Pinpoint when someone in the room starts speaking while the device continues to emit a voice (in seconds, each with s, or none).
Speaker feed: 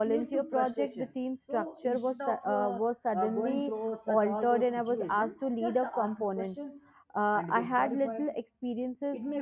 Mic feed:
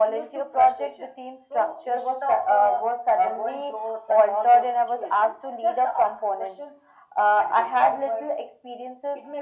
none